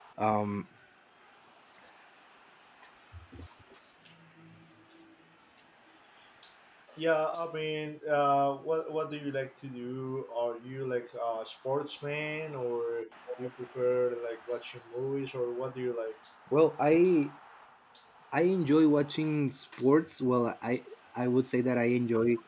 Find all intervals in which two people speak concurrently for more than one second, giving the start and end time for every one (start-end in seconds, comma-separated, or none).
none